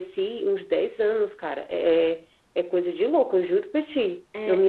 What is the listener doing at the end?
taking over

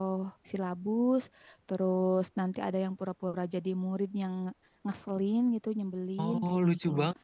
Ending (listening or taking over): taking over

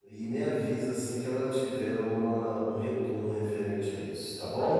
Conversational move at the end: taking over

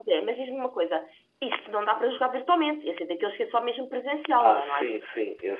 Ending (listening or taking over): taking over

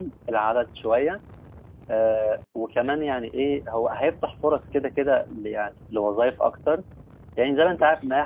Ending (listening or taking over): listening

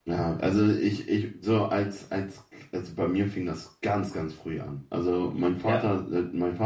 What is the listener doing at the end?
listening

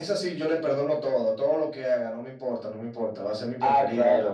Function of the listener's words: listening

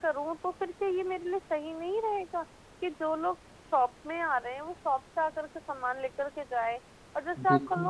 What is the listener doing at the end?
listening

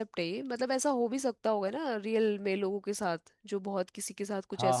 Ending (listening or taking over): taking over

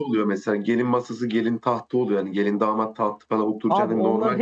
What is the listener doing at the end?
taking over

